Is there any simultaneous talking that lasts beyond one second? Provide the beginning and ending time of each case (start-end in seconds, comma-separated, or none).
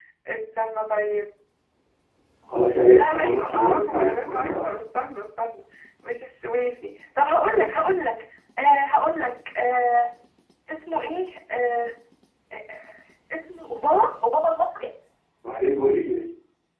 2.9-4.7